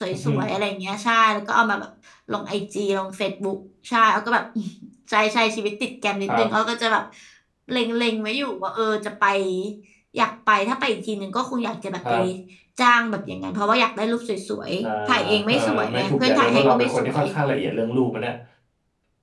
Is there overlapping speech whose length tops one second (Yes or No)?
Yes